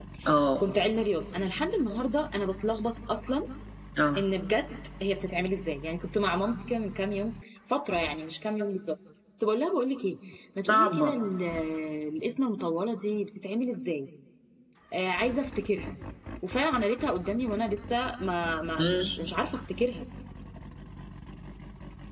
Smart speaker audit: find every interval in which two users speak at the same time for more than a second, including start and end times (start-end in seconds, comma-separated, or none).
none